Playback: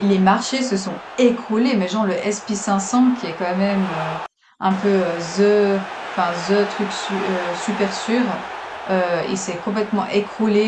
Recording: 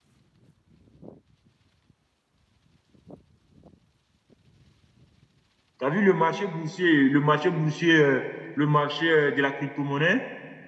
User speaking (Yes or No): Yes